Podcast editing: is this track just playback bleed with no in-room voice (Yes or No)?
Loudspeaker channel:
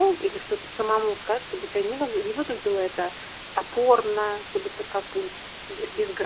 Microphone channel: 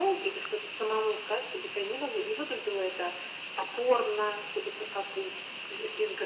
Yes